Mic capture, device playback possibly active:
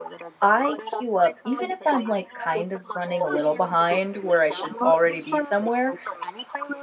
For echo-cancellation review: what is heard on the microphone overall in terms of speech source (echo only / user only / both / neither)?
both